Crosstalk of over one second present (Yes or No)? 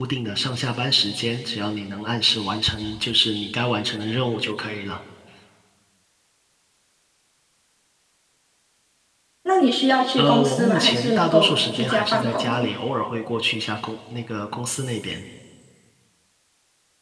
Yes